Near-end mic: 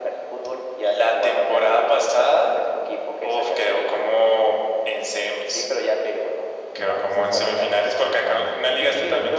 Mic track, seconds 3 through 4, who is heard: echo only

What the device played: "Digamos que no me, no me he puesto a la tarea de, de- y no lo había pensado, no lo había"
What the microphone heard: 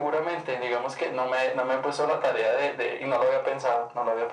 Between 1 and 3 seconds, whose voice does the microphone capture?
echo only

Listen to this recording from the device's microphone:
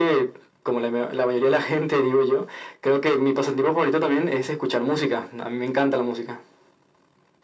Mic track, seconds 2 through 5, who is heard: echo only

